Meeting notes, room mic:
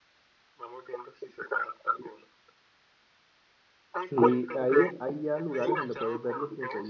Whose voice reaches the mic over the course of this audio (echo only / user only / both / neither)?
both